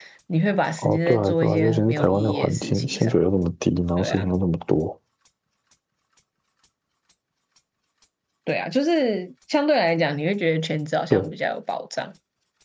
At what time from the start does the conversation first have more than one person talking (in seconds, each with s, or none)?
0.8 s